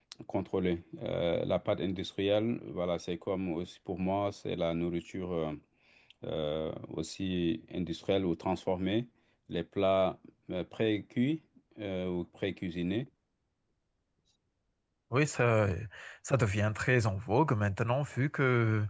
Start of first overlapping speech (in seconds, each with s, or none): none